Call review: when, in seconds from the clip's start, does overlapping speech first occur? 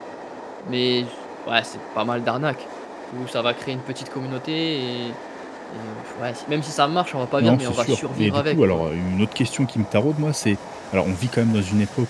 7.4 s

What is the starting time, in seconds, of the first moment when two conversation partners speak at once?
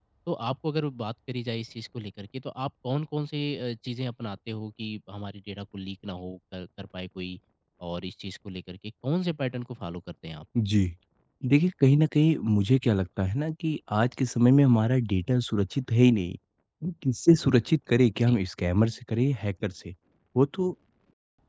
none

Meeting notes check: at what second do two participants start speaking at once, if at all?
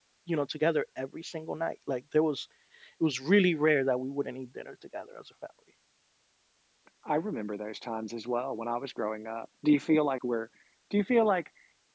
none

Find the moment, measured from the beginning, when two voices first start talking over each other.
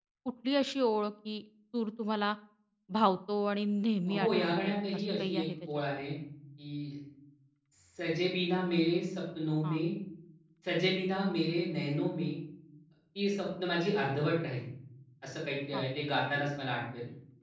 4.0 s

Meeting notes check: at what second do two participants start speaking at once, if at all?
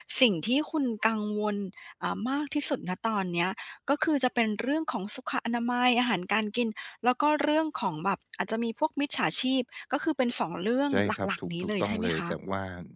10.9 s

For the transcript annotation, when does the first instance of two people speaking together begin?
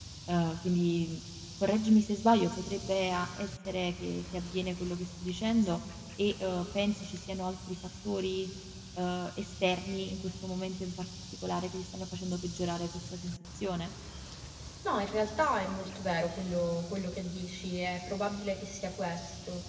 none

